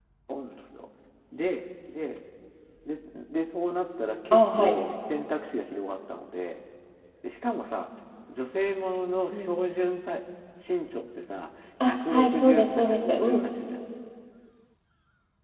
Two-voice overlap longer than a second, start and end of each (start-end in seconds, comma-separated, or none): 11.9-13.5